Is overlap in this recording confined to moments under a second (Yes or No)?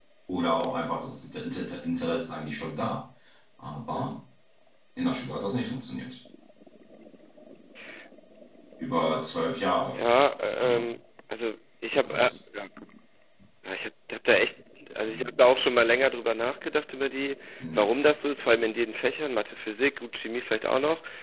Yes